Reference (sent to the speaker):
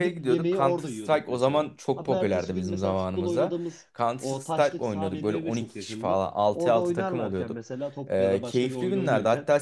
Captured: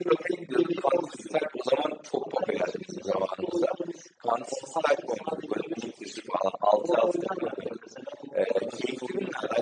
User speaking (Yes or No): No